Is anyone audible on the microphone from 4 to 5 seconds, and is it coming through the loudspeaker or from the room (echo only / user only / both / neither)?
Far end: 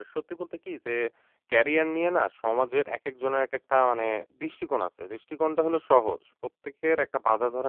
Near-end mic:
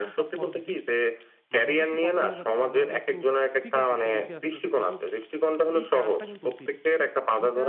both